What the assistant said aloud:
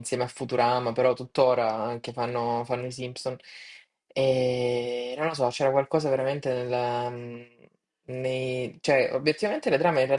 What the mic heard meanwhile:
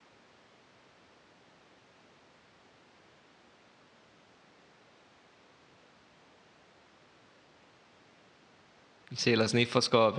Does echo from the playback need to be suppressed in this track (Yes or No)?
No